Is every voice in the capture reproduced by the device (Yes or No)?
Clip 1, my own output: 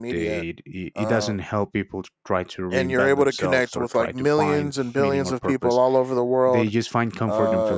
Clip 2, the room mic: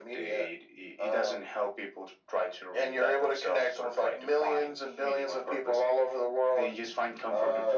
Yes